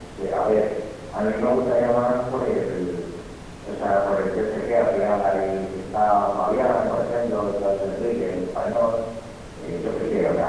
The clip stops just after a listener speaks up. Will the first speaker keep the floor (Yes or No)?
Yes